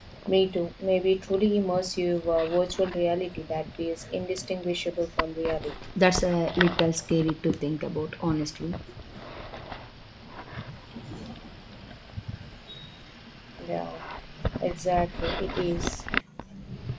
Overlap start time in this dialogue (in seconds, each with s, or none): none